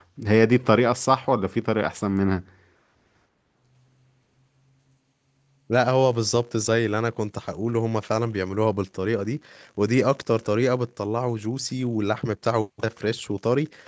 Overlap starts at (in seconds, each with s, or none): none